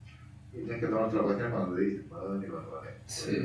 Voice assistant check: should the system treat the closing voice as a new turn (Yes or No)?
Yes